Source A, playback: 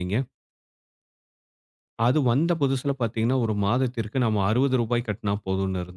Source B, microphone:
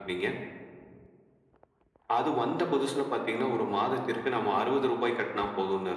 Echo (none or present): present